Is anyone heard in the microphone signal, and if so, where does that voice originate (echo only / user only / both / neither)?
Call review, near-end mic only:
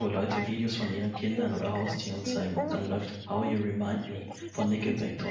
both